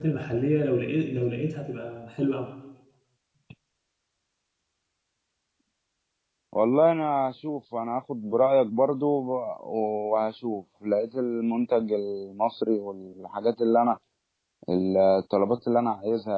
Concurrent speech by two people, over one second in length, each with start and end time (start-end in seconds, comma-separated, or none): none